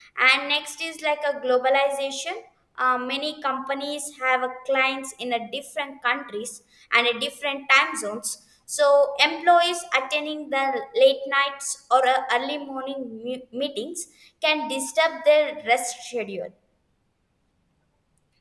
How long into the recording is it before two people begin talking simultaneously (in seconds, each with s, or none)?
none